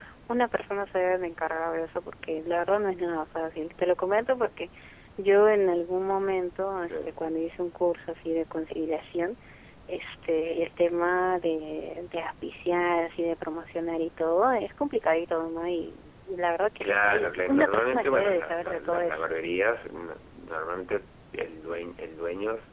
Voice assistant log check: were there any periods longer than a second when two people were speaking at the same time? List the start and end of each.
16.8-19.3

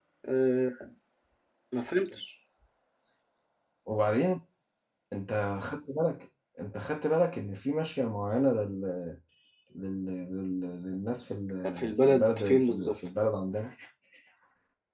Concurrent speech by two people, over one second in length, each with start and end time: 11.7-12.9

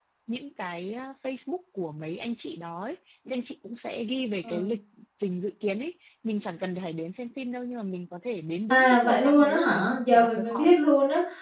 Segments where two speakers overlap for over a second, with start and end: 8.7-10.8

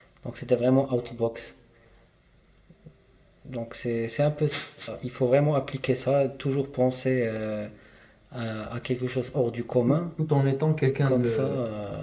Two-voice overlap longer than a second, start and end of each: none

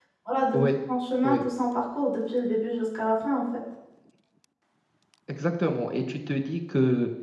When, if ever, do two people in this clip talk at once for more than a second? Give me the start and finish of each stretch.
none

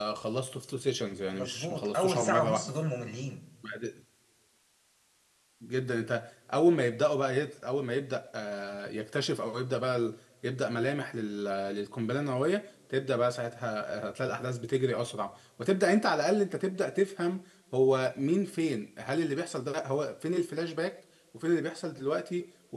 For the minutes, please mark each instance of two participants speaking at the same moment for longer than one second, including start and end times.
1.3-2.7

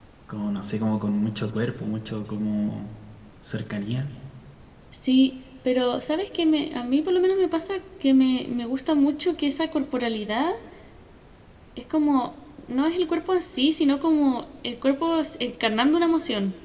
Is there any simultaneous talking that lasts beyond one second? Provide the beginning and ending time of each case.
none

